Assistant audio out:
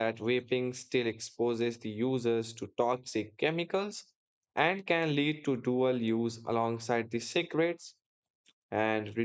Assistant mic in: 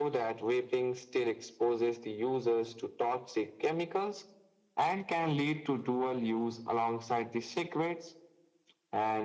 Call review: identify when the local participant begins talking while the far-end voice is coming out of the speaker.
none

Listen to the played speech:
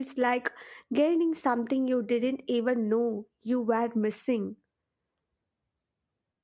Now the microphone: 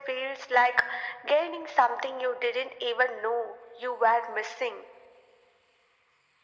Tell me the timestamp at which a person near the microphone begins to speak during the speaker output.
none

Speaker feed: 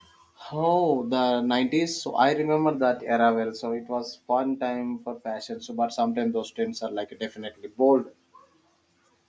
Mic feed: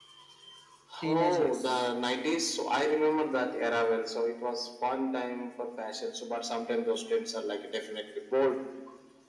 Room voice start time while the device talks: 1.0 s

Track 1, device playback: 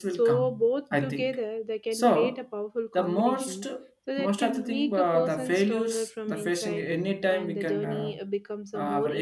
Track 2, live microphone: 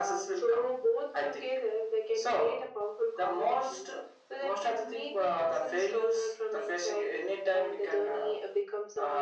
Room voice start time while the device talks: none

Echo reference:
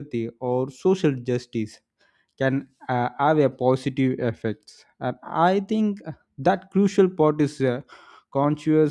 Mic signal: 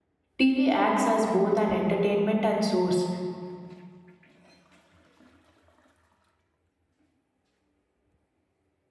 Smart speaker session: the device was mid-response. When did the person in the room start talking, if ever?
0.4 s

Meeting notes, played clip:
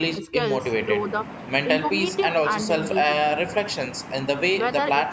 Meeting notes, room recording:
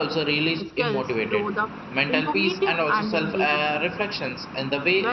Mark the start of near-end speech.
none

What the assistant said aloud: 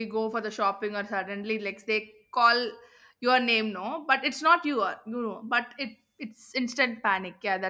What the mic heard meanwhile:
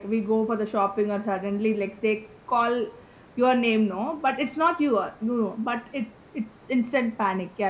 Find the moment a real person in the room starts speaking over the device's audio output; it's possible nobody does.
none

